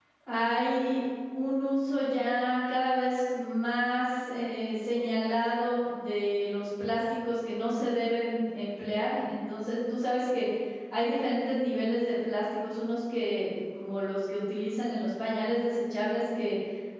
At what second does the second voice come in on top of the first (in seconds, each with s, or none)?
none